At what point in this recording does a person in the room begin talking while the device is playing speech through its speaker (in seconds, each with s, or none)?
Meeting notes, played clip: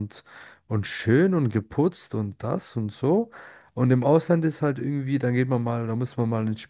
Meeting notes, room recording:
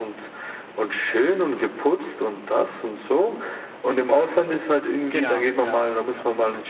5.1 s